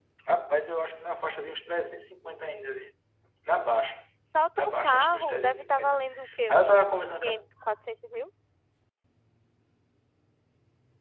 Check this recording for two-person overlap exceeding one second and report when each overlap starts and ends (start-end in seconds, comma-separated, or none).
4.6-6.0